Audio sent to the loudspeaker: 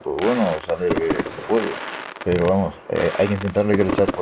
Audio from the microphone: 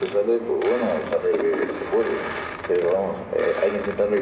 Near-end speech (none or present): none